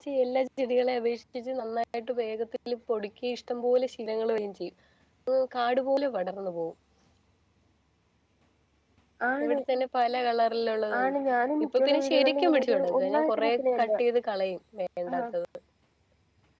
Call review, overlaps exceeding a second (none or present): present